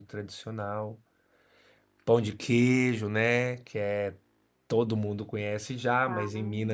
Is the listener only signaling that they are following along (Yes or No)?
Yes